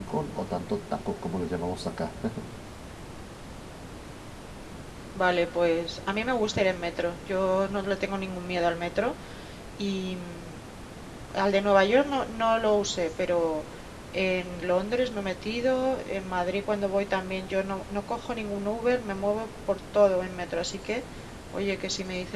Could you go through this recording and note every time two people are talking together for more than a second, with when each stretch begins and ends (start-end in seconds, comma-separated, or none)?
none